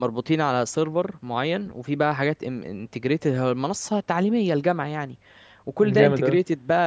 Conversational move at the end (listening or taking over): listening